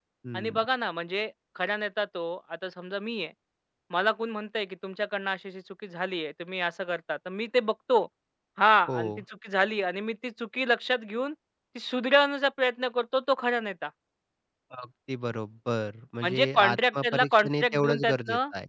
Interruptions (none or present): present